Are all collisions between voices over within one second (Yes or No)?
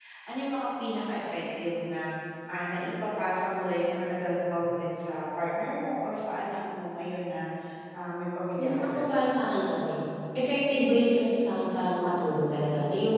Yes